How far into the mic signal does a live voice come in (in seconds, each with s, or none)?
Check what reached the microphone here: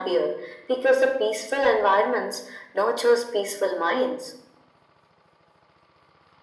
none